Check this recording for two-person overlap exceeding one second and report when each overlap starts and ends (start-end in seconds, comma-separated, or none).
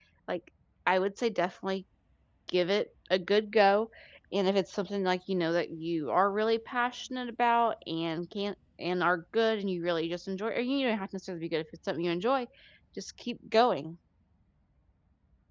none